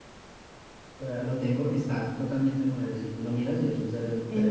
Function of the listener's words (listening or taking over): taking over